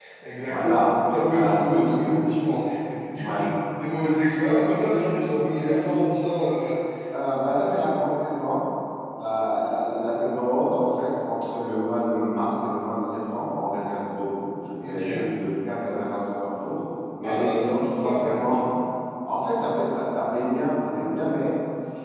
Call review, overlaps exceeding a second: present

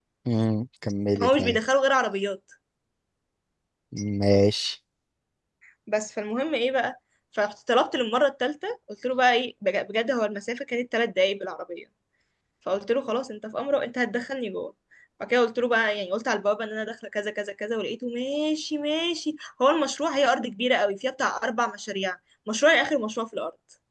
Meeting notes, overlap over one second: none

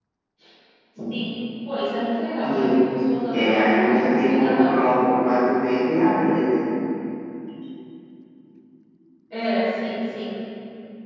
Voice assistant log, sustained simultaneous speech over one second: present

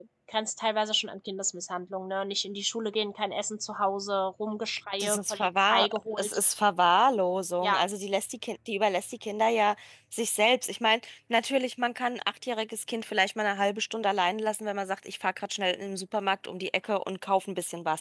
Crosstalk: present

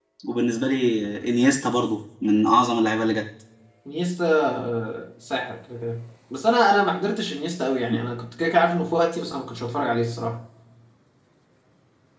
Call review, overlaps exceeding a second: none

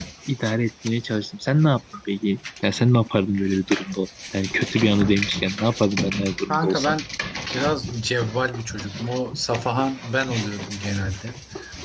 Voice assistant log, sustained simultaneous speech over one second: none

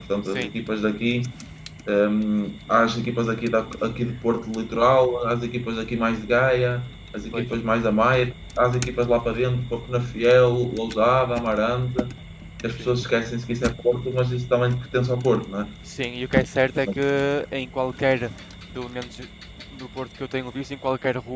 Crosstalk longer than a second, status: none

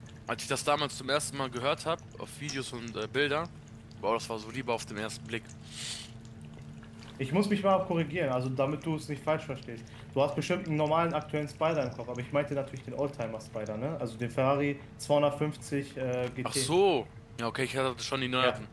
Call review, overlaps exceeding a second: none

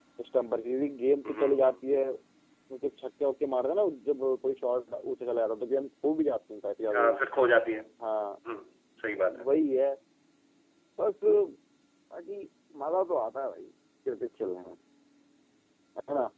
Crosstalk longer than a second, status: none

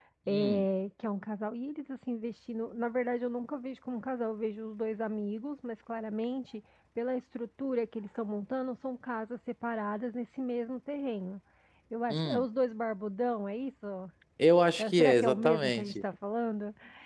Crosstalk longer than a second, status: present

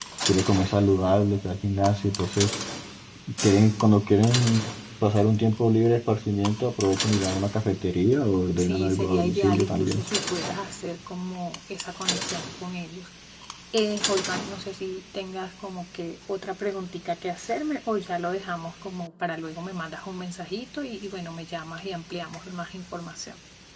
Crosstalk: present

